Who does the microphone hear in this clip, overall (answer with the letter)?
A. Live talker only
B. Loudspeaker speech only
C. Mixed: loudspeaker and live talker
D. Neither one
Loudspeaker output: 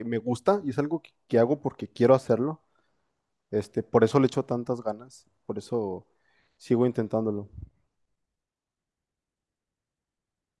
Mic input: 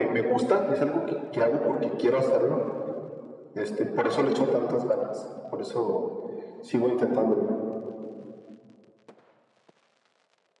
B